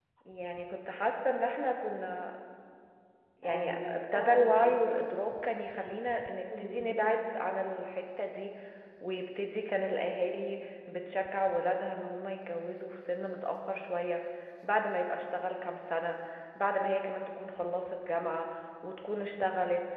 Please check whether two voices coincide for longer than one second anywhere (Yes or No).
Yes